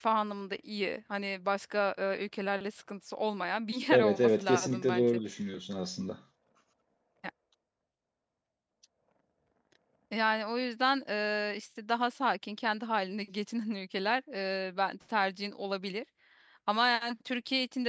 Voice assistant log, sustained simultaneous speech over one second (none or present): present